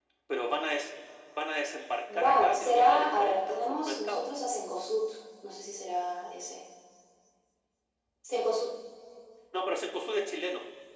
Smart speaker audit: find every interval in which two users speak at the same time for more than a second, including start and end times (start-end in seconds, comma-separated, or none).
2.1-4.3